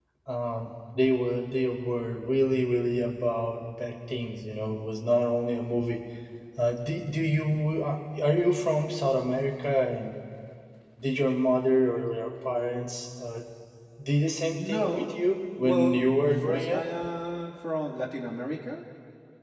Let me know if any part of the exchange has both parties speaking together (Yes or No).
Yes